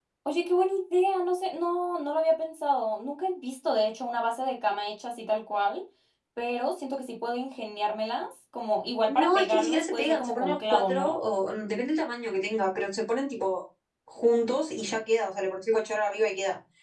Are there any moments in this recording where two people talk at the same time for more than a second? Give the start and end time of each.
9.1-11.2

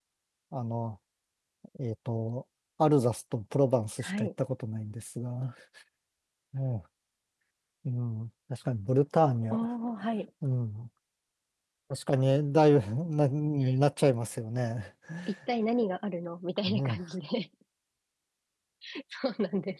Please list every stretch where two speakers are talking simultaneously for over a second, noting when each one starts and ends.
none

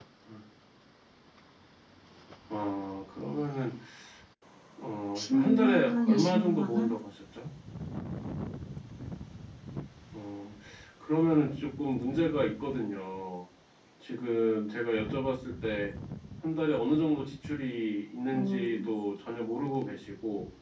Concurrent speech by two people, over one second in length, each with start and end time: 5.2-6.9

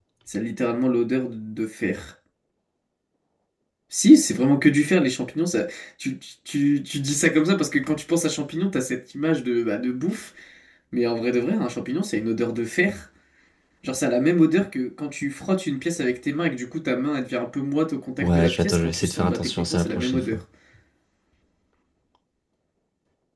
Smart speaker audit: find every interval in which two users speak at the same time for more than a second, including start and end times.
18.2-20.4

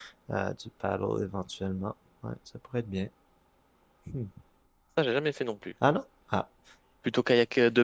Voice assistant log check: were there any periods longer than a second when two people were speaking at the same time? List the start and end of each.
none

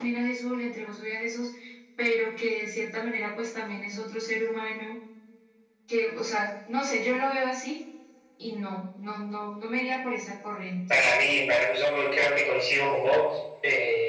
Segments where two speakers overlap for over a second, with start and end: none

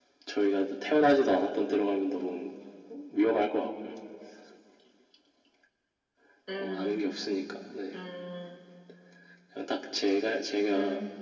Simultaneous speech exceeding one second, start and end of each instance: none

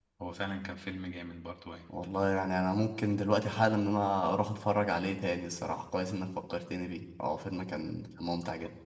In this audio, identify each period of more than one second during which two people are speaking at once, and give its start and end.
none

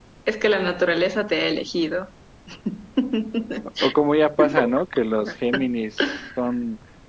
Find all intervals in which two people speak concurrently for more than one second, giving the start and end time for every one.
none

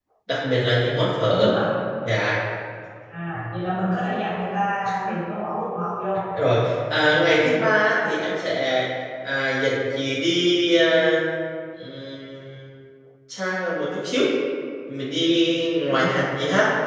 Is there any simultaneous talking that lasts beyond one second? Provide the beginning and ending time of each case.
none

